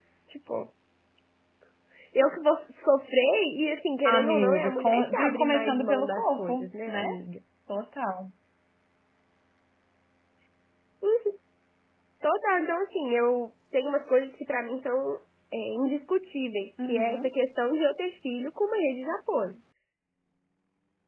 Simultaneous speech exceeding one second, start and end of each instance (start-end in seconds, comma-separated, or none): 4.0-7.1